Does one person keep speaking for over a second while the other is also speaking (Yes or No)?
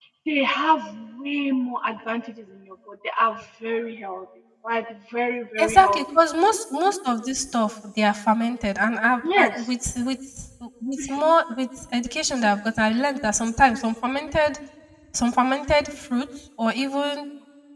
No